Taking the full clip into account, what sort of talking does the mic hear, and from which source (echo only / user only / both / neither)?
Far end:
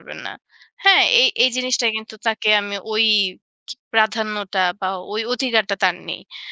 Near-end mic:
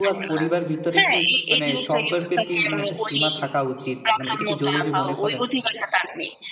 both